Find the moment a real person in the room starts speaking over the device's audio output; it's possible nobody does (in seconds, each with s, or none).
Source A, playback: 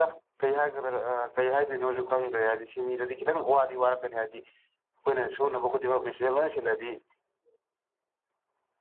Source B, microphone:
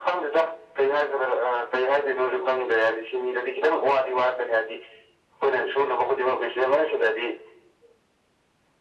none